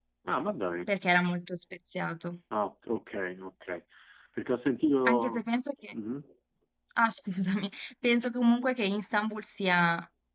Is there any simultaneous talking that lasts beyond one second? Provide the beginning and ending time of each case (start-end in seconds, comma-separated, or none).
none